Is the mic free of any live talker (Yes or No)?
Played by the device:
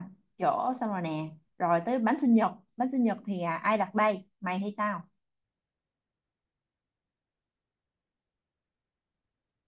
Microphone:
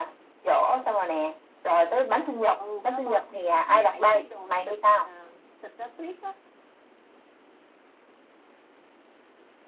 No